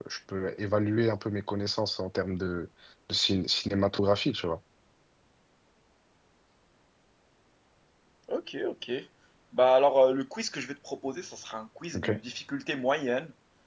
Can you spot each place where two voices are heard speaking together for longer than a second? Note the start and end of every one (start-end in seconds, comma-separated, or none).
none